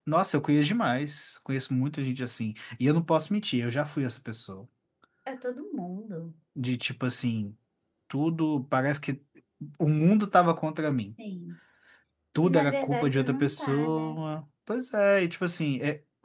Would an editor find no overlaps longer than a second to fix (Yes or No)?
No